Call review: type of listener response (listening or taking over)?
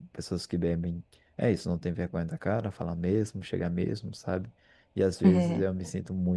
listening